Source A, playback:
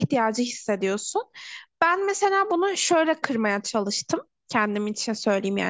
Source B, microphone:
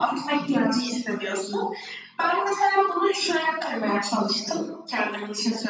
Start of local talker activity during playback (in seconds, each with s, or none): none